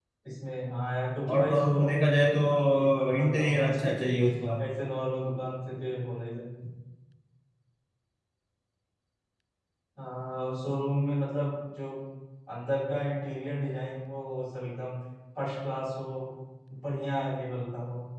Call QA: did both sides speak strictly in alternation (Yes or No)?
No